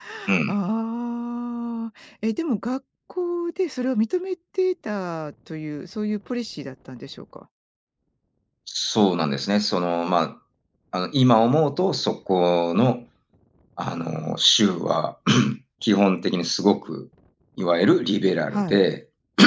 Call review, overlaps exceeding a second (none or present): none